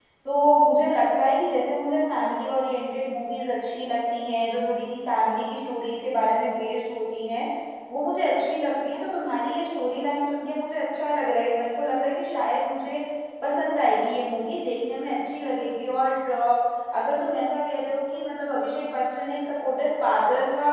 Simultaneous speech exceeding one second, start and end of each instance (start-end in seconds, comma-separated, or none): none